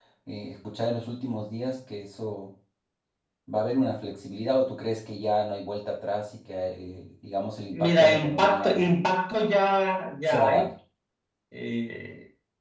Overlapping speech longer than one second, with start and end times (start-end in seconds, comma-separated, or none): 7.7-9.0